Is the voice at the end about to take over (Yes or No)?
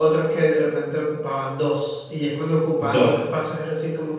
No